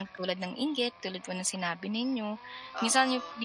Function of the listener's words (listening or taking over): listening